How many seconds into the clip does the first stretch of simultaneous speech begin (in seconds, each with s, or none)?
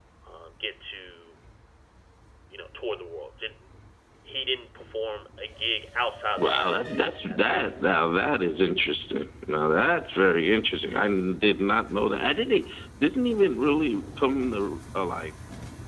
6.4 s